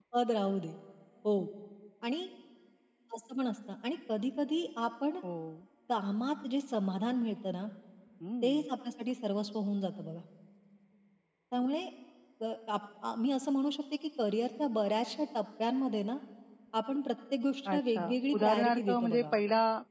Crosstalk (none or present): present